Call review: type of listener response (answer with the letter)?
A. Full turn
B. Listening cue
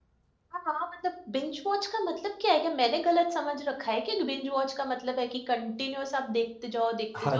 A